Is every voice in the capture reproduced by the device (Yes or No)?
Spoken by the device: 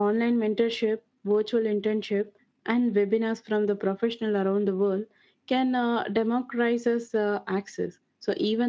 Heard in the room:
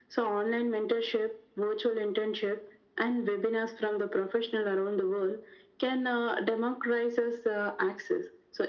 Yes